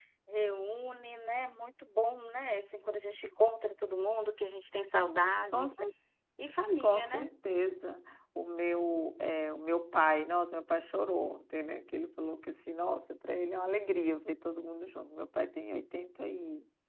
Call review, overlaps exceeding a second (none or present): none